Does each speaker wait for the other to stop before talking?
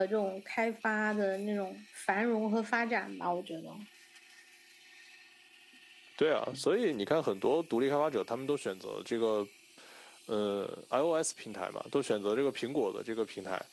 Yes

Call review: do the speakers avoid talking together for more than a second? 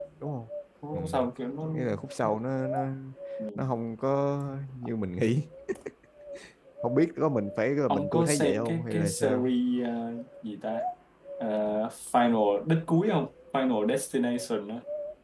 No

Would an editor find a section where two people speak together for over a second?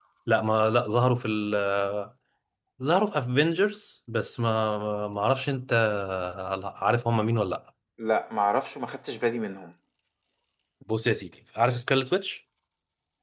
No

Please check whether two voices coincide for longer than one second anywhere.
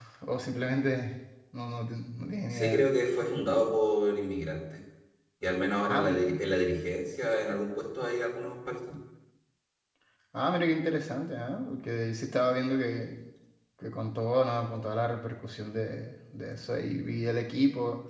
No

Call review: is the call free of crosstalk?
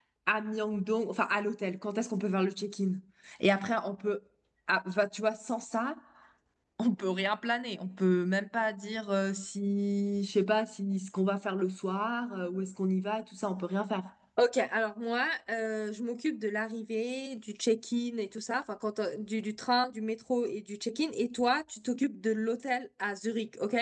Yes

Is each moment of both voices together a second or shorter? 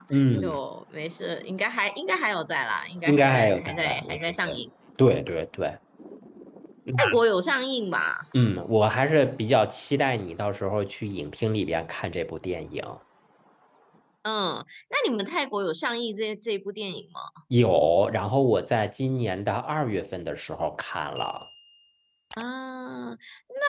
No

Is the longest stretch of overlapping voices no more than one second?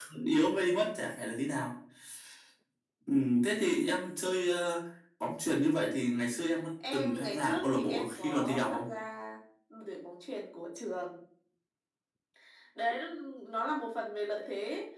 No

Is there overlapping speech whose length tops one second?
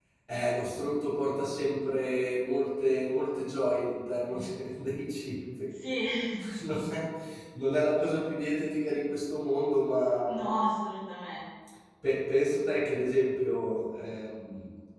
No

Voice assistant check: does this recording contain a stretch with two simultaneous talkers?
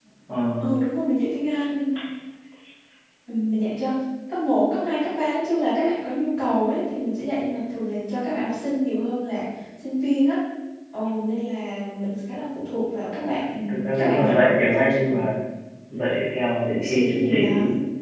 Yes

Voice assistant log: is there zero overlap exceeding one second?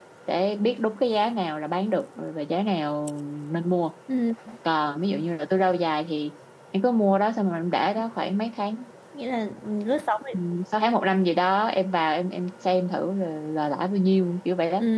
Yes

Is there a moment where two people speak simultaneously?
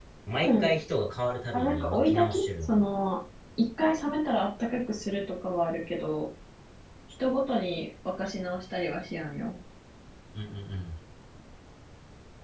Yes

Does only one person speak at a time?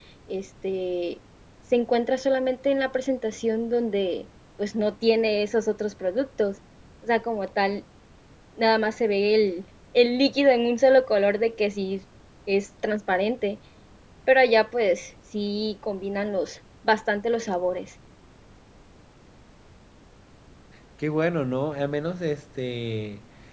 Yes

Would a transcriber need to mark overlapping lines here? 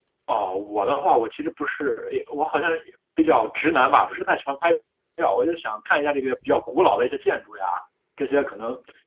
No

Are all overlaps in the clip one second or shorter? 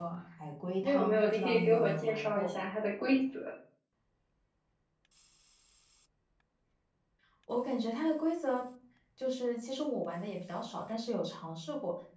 No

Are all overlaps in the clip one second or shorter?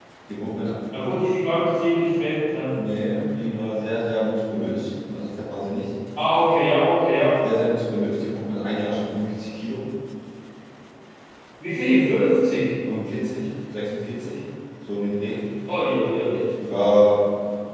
Yes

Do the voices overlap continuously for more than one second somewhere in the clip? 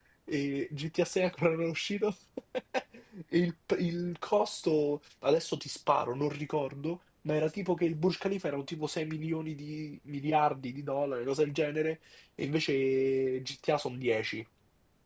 No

